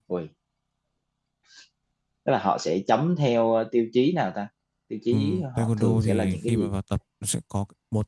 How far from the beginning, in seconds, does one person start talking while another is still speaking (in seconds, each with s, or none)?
5.1 s